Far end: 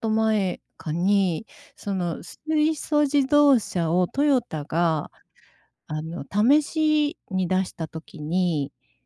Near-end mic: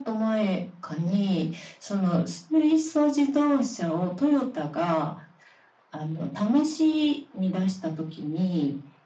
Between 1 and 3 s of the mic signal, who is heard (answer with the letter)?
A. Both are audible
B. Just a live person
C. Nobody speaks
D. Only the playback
D